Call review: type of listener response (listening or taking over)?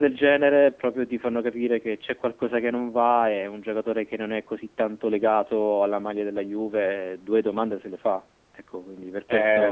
taking over